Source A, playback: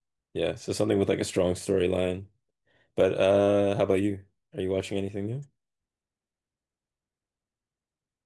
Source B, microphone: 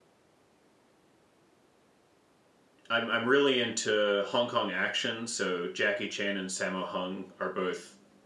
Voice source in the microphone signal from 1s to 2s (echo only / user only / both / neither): neither